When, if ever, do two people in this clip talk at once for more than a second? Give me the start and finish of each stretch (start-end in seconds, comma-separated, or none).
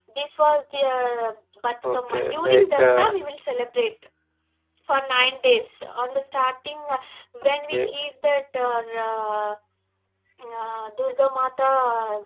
1.9-3.1